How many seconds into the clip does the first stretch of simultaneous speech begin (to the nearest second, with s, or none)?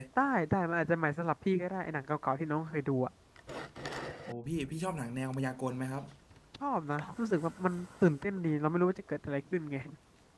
none